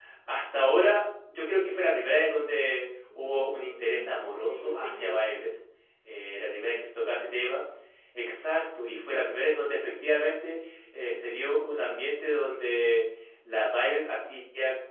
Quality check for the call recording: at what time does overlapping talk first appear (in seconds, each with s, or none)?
3.1 s